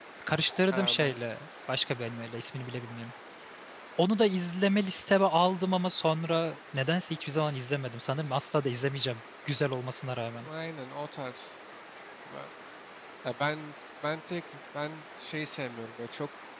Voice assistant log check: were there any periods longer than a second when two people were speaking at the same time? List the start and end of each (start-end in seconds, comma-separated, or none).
none